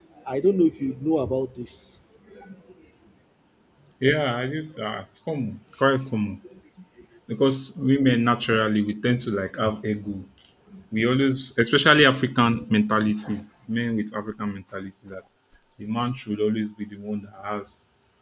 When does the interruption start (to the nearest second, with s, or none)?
none